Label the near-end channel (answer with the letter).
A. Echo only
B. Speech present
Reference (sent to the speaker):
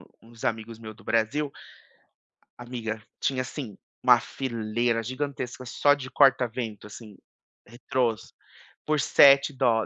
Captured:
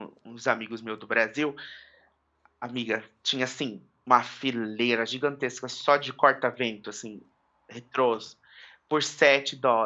A